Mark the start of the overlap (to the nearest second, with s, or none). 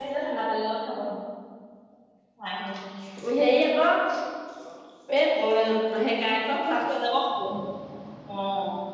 none